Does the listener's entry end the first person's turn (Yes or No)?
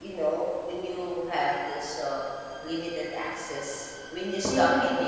No